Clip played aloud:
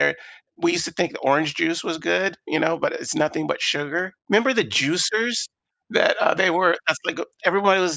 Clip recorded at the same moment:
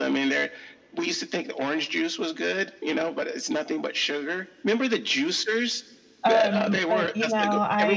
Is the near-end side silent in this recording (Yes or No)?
No